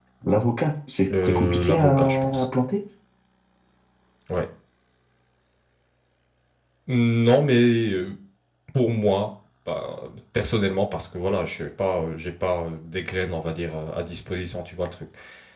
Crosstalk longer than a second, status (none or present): present